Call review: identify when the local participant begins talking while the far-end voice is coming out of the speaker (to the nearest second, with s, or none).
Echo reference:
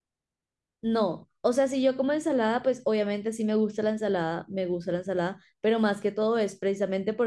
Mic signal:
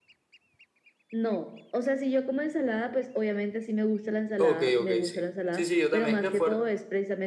4 s